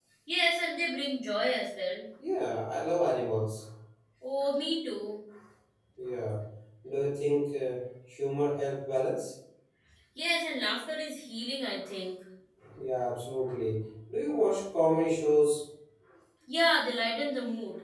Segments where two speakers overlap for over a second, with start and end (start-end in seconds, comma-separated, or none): none